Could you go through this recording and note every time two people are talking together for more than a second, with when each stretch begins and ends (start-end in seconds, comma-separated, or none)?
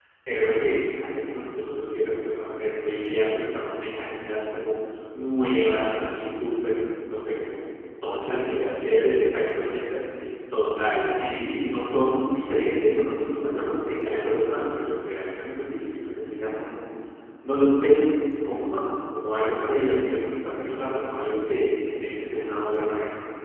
8.3-9.7